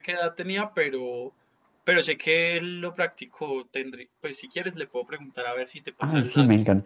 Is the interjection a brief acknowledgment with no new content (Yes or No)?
No